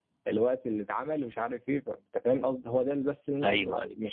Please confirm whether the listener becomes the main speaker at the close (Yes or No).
Yes